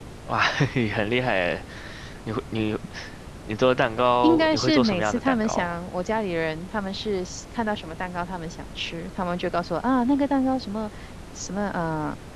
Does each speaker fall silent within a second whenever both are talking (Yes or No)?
No